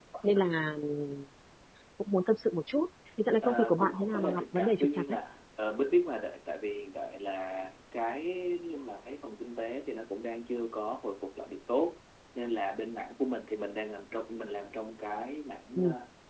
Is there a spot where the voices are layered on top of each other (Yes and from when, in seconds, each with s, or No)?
Yes, from 3.4 s